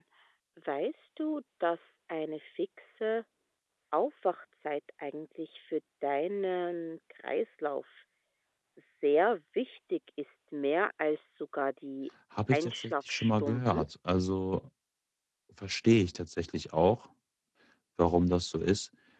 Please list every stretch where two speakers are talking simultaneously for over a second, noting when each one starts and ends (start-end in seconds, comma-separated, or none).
12.5-13.8